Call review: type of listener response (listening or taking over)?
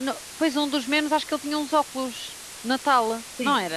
taking over